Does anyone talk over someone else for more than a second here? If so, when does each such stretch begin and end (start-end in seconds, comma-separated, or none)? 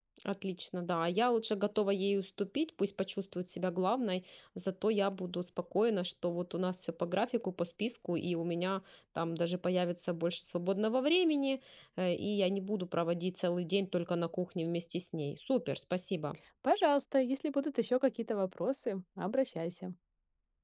none